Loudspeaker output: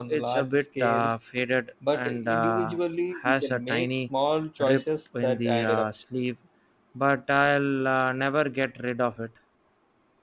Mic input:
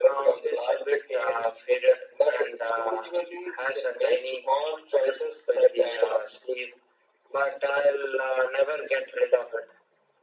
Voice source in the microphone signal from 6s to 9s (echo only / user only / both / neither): echo only